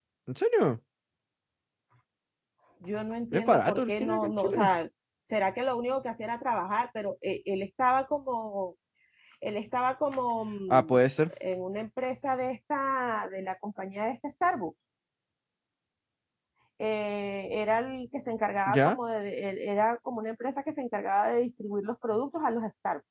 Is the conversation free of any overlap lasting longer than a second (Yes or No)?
No